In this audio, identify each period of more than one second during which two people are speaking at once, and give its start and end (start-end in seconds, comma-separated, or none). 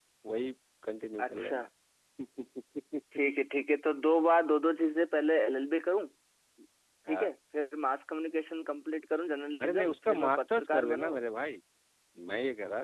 9.6-11.1